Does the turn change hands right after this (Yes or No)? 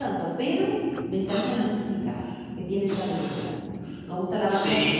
Yes